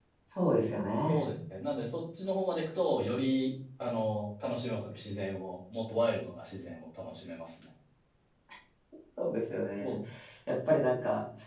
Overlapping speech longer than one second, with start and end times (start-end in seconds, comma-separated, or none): none